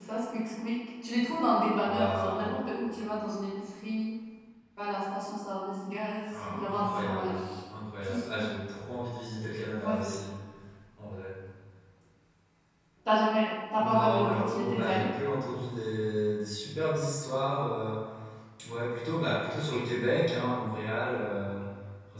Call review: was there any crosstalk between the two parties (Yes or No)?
Yes